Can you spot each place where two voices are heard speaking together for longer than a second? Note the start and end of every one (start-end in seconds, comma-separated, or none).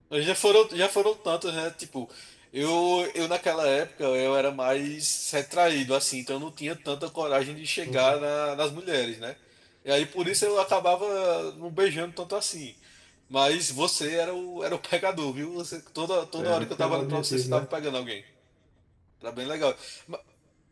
16.4-17.6